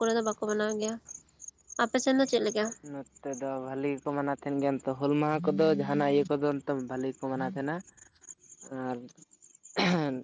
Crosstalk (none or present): none